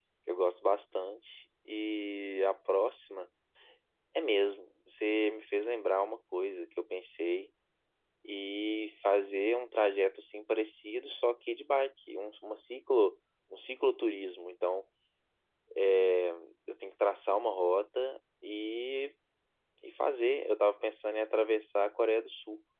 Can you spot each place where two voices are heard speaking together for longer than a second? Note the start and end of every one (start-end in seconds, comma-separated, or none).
none